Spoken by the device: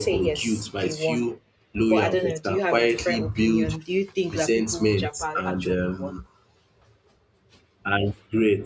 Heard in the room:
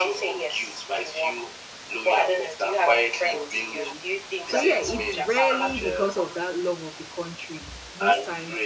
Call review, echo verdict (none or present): present